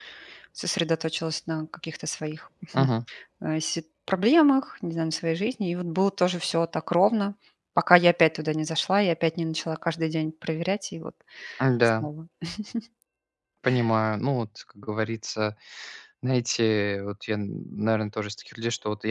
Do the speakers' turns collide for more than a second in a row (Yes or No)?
No